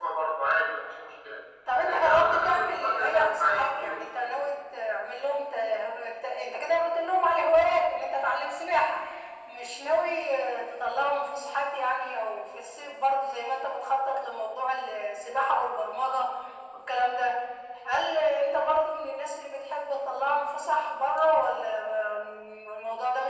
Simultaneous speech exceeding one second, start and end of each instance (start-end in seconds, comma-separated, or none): 1.9-4.0